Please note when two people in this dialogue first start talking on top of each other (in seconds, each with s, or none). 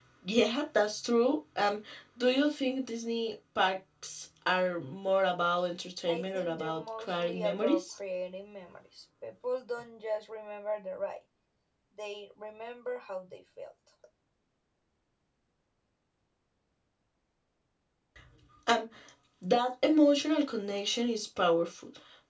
6.1 s